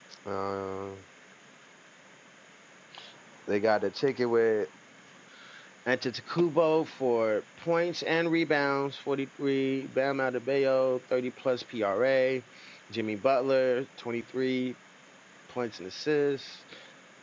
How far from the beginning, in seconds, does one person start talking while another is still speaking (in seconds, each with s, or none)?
none